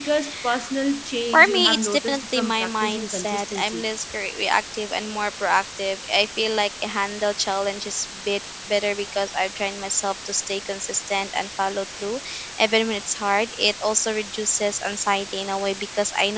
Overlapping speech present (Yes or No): Yes